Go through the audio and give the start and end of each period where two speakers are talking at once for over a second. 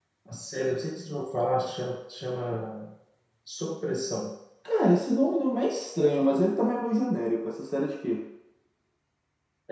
none

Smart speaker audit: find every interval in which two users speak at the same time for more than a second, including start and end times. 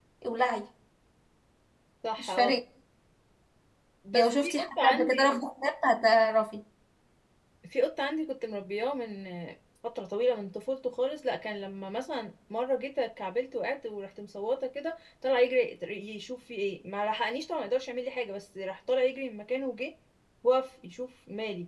4.1-5.4

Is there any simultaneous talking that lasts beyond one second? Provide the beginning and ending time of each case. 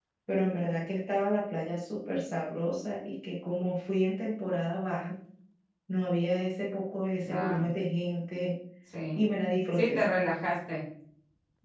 none

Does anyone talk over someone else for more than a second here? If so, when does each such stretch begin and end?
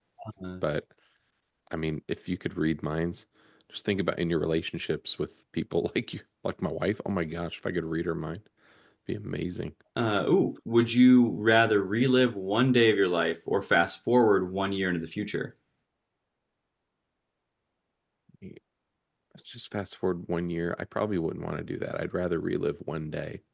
none

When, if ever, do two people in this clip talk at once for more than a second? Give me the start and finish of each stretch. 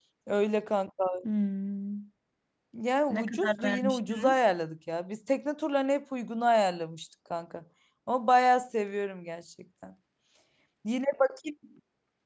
3.1-4.4

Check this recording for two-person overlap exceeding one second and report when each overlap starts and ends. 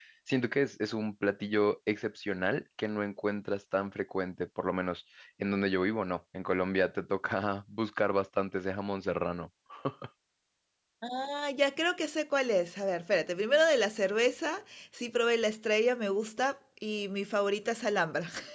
none

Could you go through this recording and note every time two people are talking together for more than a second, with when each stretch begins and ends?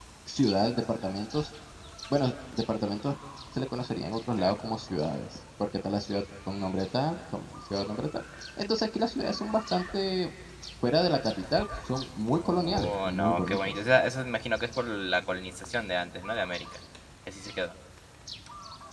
12.4-13.8

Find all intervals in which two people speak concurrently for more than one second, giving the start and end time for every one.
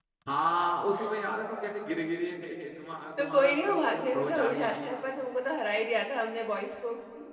3.2-4.9

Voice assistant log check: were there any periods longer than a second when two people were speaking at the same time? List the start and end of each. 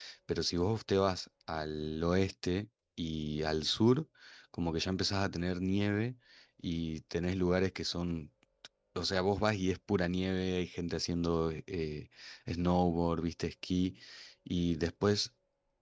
none

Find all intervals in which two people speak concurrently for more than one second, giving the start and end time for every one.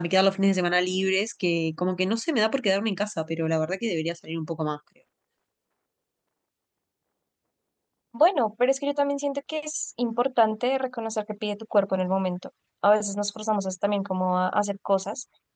none

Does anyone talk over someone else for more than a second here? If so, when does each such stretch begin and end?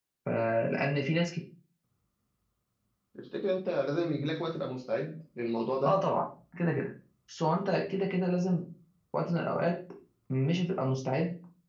none

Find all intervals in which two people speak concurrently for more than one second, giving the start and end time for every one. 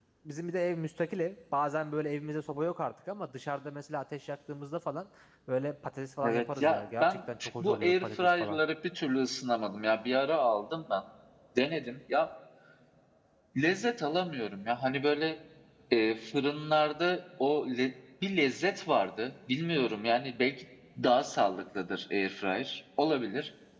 6.2-8.6

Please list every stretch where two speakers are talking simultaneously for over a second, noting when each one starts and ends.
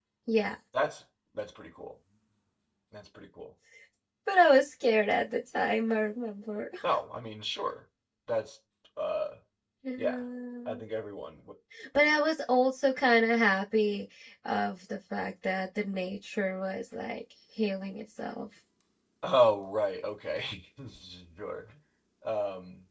none

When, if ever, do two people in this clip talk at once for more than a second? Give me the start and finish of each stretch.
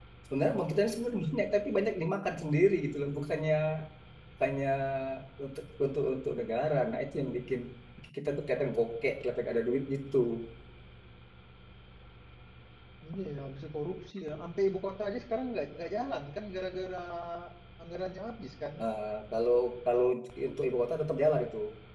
none

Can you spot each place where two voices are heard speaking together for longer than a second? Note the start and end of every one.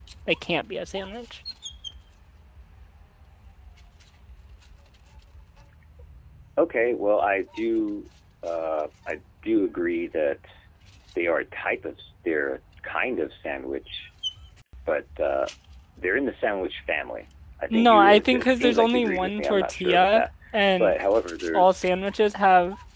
17.7-20.3

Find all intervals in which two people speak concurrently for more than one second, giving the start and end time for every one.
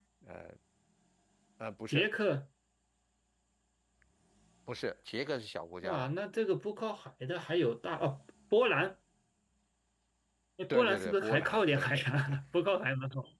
10.7-12.4

